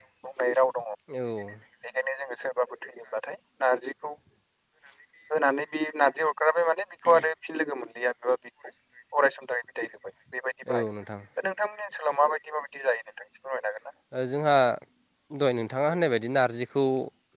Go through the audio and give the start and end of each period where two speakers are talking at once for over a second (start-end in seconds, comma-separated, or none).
none